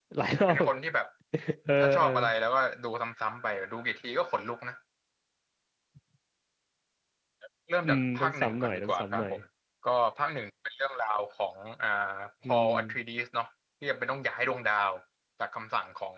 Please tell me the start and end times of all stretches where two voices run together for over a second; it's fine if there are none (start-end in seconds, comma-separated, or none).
7.8-9.3